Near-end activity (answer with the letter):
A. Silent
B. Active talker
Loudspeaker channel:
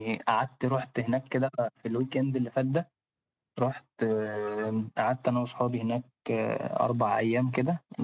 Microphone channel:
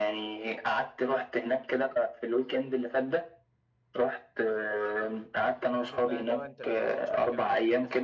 B